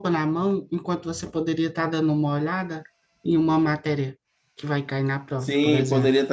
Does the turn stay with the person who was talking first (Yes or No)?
No